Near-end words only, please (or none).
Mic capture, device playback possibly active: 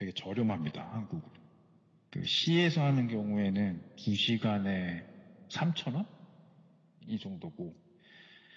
none